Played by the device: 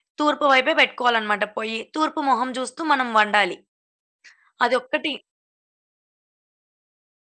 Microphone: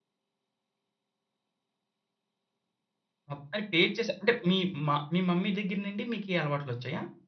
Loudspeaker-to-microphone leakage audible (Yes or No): No